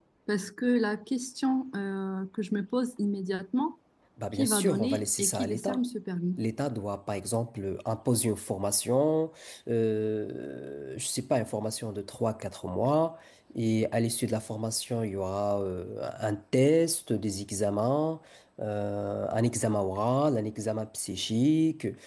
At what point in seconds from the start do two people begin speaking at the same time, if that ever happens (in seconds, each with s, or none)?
4.3 s